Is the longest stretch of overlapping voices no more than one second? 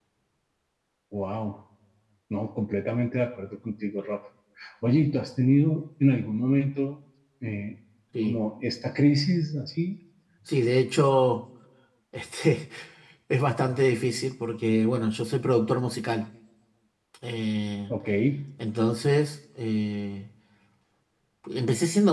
Yes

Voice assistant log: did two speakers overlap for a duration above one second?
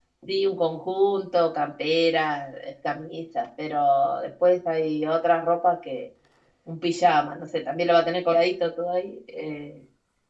No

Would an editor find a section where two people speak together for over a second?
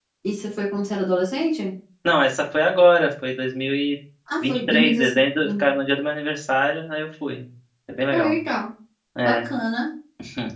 Yes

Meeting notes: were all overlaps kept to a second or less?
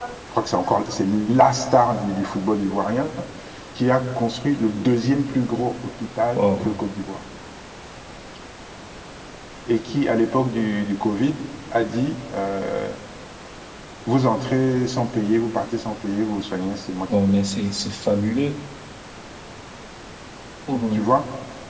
Yes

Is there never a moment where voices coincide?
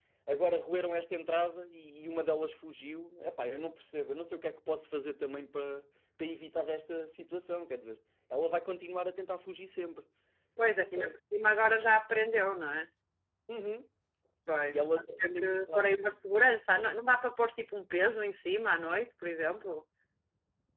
No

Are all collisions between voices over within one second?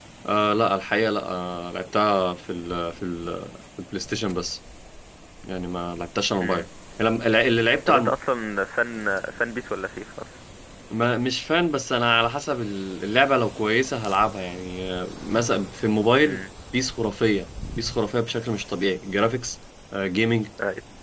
Yes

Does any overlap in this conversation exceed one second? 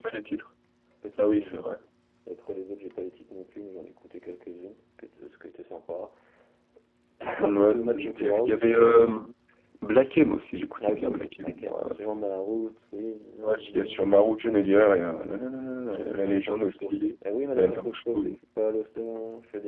Yes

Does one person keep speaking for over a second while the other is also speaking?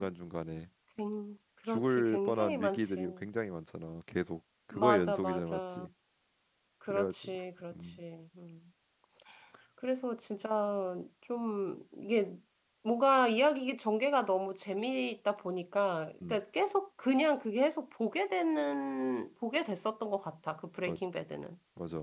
Yes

